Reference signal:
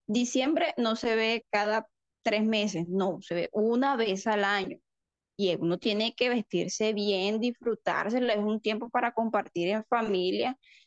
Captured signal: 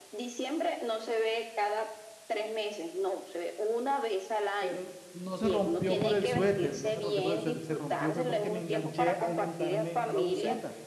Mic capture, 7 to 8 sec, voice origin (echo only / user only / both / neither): both